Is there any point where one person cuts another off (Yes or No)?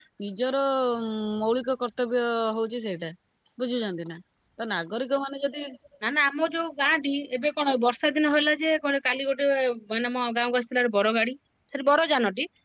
No